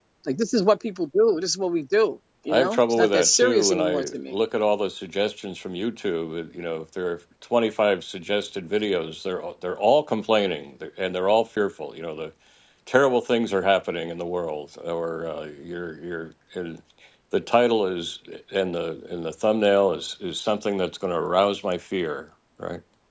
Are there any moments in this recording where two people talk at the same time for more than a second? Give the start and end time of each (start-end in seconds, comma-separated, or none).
2.5-4.4